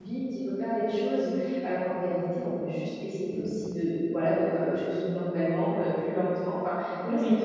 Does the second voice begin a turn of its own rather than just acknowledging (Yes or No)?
Yes